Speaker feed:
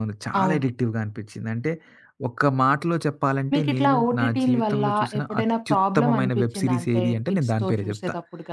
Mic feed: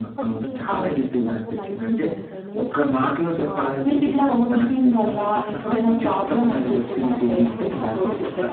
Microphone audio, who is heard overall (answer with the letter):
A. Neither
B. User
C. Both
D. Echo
C